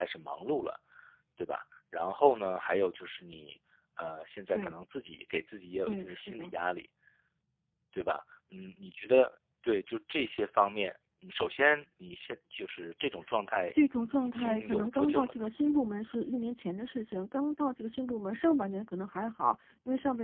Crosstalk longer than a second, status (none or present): present